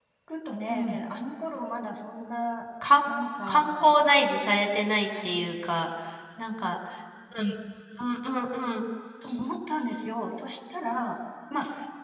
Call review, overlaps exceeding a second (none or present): none